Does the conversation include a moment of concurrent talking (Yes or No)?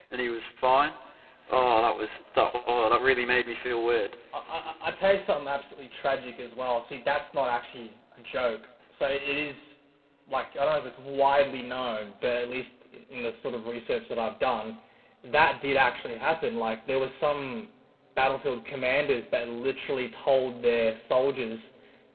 No